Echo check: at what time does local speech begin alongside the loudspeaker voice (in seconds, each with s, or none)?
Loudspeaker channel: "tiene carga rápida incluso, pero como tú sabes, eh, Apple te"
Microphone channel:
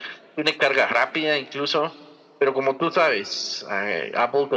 none